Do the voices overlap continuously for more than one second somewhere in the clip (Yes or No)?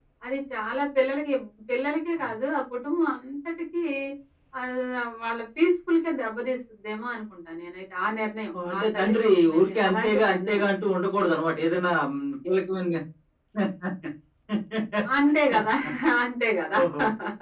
Yes